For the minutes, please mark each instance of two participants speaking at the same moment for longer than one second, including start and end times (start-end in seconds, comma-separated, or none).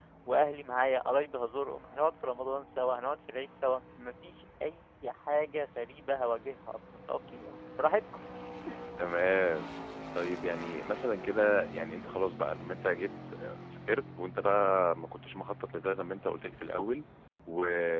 none